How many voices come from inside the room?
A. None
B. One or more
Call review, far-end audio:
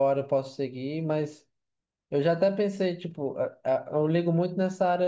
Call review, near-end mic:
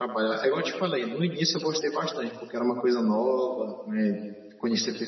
B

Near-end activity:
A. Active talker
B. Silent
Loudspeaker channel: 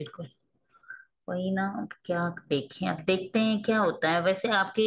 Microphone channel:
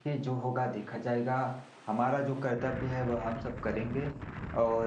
A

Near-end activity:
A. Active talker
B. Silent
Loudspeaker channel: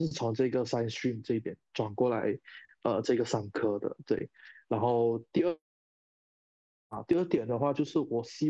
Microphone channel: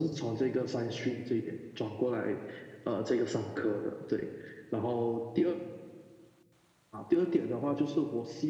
B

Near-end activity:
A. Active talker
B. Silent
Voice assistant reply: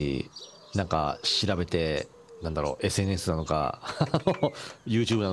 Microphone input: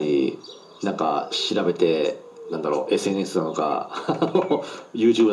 B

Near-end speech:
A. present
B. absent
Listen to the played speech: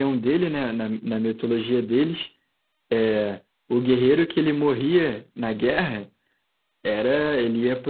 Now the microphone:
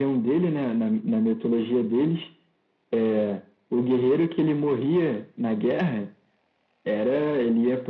B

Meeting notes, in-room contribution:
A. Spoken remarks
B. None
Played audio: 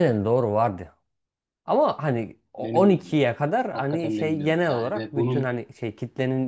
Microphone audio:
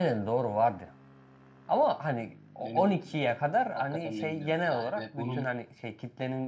B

